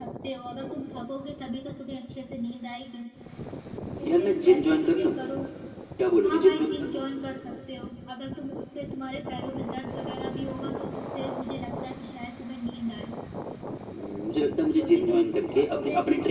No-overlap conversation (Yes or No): No